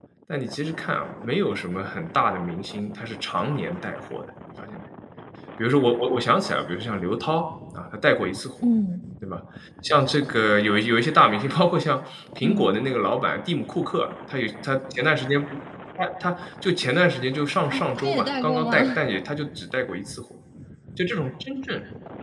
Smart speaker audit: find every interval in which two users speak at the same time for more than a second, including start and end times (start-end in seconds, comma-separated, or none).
17.7-19.0